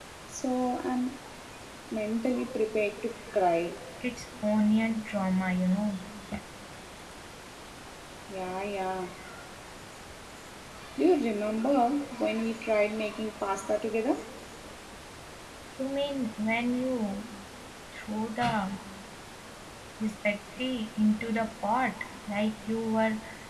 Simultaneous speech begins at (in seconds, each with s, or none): none